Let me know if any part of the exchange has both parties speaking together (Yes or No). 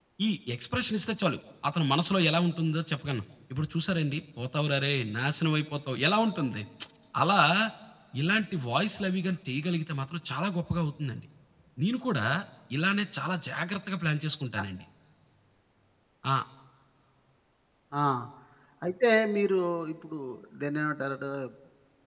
No